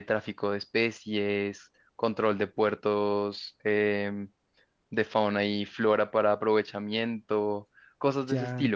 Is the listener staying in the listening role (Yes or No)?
No